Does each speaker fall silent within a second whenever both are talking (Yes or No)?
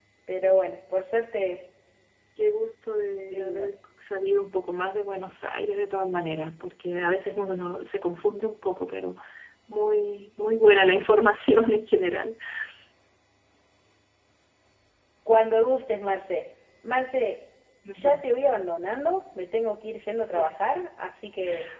Yes